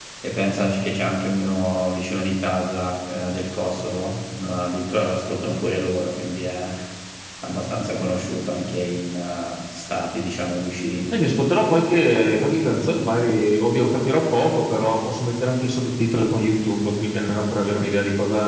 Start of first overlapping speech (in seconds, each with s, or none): none